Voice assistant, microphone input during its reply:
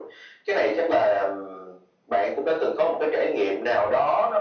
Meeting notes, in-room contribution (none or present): none